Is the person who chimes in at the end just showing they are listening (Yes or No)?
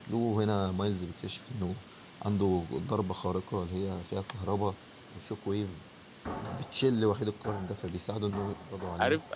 No